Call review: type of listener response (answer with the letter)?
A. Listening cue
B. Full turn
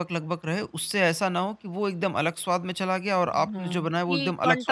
B